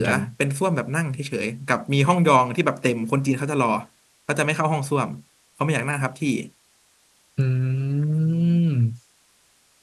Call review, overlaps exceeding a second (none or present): none